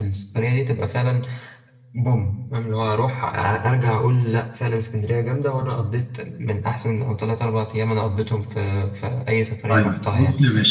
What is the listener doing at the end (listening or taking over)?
taking over